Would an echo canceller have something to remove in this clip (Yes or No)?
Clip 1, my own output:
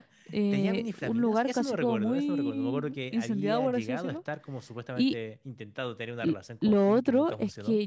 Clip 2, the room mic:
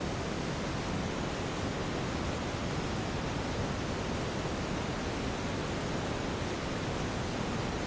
No